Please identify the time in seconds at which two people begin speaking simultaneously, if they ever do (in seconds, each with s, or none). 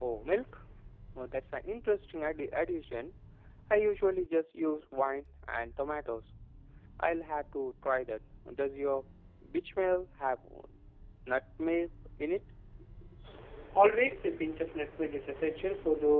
none